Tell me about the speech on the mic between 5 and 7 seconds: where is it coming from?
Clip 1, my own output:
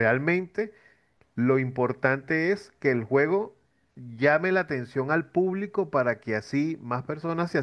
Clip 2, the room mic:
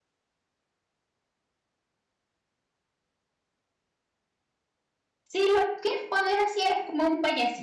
user only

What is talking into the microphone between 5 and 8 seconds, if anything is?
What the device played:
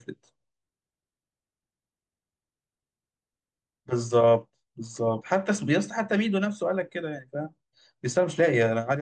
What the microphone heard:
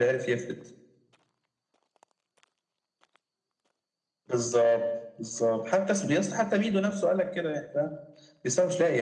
echo only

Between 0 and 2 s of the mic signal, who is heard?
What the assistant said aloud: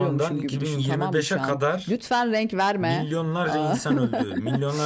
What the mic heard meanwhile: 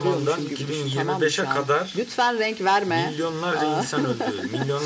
echo only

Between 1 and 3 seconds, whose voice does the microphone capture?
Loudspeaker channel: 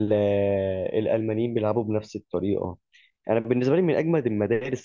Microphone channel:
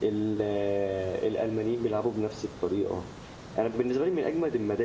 echo only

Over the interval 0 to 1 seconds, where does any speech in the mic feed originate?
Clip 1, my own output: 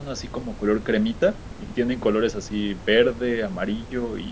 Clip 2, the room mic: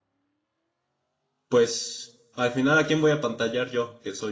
neither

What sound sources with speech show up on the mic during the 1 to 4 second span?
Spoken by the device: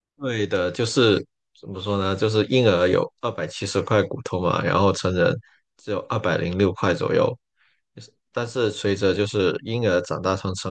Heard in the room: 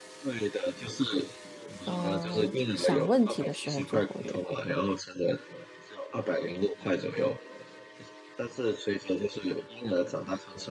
both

